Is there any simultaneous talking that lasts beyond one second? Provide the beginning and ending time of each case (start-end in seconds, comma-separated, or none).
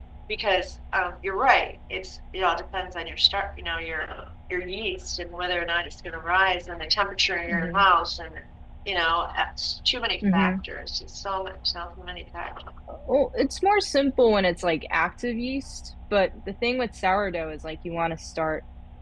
none